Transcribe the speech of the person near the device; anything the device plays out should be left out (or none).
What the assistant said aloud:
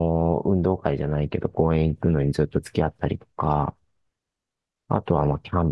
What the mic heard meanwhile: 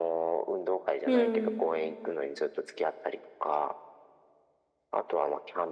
うん、